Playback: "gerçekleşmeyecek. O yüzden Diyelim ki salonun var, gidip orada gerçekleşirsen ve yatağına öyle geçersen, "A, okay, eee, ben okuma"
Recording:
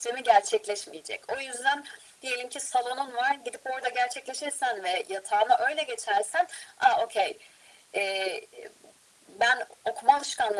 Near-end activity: none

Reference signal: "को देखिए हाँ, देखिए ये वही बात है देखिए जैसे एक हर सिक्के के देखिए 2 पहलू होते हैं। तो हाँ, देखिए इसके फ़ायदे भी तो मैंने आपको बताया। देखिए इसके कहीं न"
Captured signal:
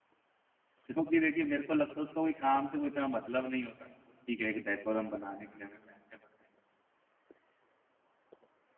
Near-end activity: present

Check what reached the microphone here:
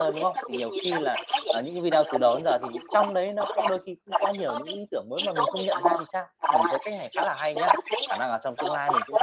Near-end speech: present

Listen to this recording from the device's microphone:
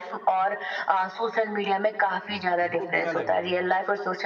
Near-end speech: present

